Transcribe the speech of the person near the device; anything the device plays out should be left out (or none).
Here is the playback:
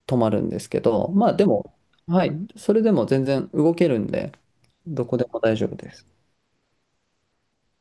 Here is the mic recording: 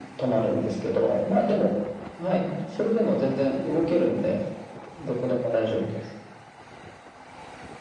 none